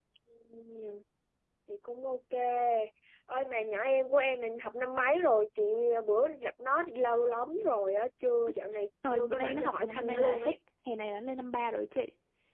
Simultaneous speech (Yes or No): Yes